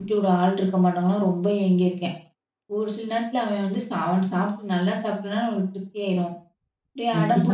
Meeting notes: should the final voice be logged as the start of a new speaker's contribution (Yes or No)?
Yes